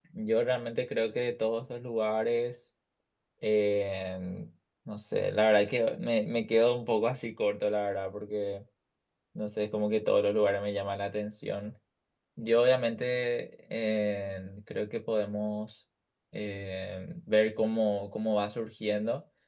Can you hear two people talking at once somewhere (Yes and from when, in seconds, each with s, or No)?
No